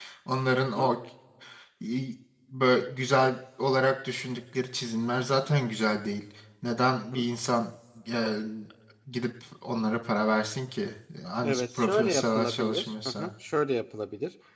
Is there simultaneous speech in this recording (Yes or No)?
Yes